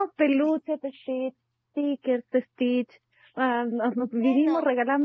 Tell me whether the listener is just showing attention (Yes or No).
Yes